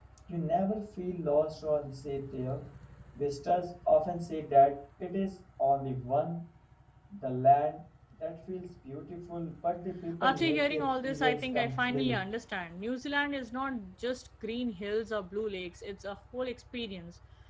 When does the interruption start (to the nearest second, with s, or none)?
10 s